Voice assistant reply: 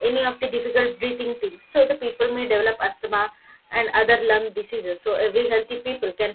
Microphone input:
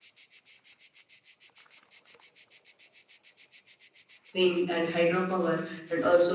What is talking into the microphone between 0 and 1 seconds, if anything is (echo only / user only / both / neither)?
neither